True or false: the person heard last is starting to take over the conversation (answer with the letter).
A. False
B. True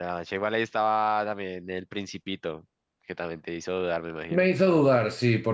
B